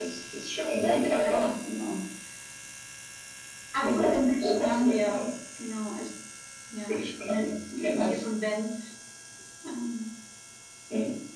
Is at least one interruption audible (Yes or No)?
Yes